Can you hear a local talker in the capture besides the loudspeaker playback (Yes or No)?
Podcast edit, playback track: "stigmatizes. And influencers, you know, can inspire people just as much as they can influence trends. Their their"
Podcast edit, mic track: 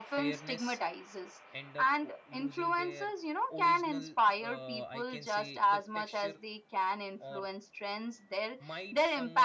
Yes